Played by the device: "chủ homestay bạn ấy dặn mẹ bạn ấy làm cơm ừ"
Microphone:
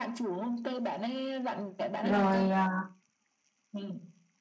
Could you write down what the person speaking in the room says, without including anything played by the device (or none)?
rồi à,